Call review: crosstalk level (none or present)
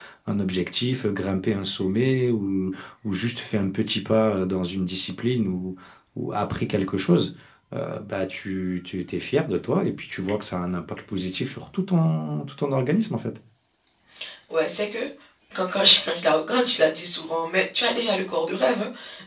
none